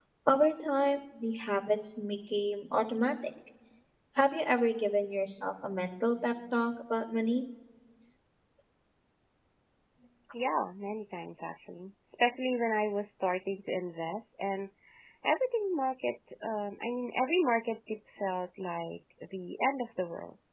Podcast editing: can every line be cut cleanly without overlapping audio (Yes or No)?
Yes